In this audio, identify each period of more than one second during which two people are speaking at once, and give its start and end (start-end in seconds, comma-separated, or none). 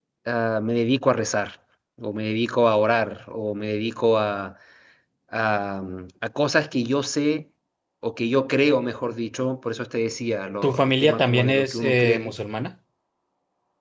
10.6-12.3